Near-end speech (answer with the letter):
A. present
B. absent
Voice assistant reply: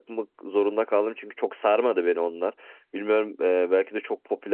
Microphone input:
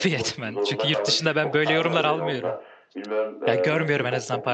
A